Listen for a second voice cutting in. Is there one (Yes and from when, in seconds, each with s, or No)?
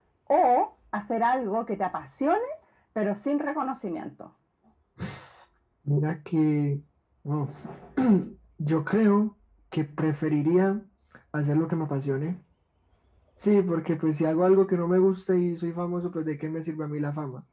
No